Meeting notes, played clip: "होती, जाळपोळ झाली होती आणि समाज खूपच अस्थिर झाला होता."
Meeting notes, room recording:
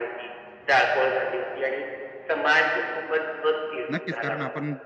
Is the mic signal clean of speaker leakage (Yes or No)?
No